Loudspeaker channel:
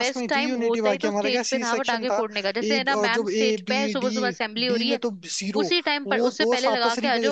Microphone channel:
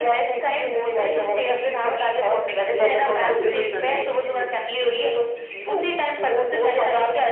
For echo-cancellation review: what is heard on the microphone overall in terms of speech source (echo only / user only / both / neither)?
both